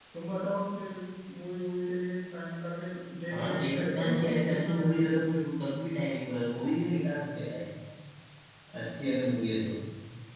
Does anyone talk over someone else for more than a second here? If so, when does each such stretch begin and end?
3.3-5.1

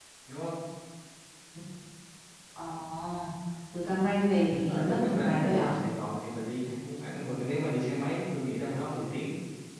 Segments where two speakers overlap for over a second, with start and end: 4.5-5.8

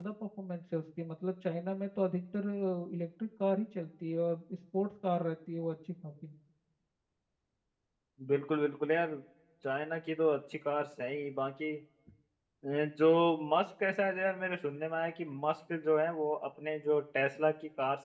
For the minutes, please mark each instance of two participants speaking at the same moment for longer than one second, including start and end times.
none

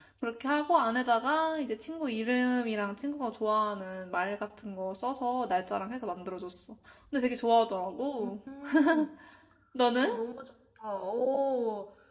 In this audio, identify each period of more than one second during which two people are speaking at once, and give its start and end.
none

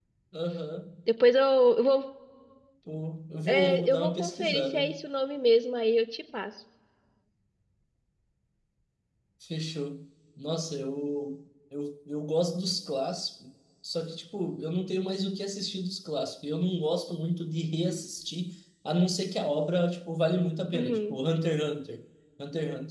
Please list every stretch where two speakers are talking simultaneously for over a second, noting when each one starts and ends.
3.5-4.9

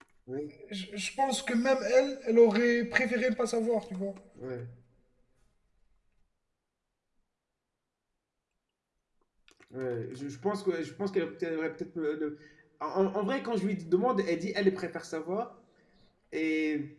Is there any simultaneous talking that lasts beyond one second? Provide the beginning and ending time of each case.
none

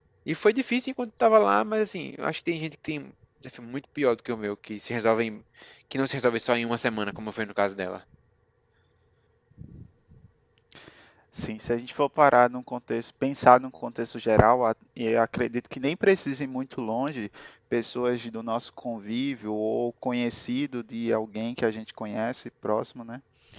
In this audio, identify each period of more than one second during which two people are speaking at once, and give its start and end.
none

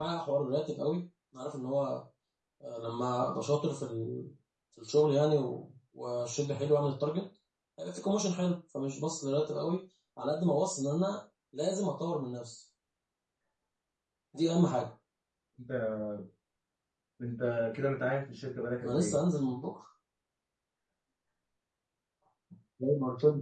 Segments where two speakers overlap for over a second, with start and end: none

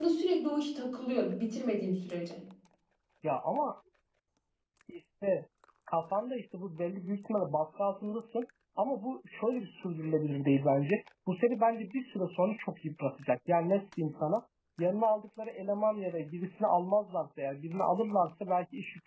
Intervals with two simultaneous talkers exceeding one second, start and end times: none

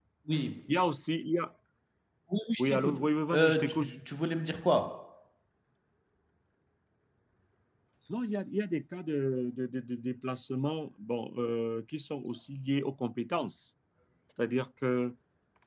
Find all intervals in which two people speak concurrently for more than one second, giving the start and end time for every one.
2.6-3.9

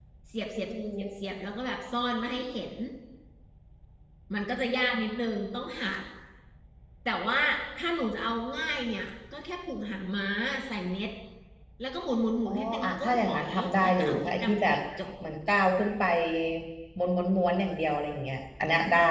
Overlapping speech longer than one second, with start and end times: 12.4-14.8

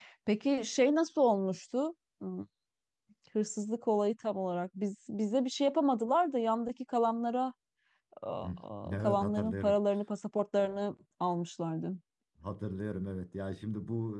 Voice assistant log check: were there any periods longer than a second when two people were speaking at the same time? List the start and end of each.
8.4-9.8

